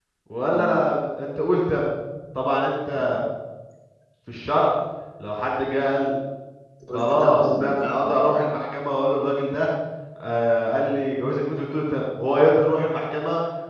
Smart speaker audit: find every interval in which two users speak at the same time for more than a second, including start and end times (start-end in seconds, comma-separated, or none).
6.9-8.5